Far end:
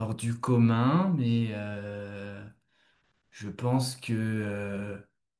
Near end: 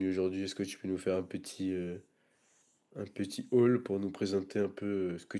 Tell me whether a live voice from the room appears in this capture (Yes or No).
Yes